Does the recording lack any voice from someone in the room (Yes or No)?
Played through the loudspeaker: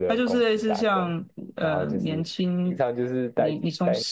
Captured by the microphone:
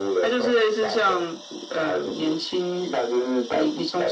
Yes